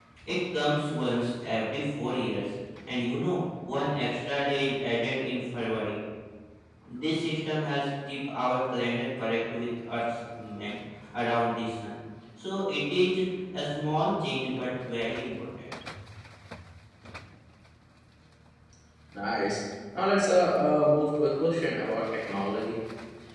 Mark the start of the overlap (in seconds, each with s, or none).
none